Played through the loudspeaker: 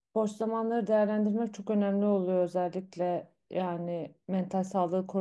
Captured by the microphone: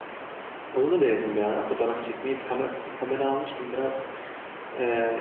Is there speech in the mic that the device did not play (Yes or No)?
Yes